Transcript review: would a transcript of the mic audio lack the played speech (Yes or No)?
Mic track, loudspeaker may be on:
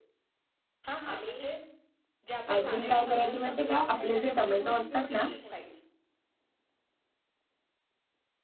No